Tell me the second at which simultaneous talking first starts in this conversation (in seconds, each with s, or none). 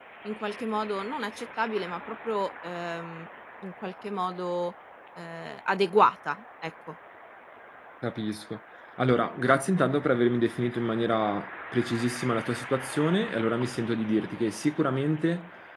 none